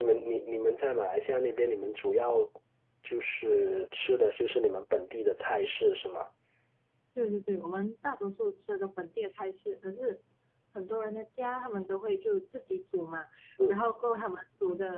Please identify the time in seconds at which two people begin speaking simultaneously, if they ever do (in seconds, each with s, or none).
none